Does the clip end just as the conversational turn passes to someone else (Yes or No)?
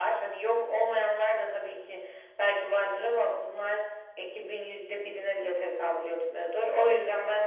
No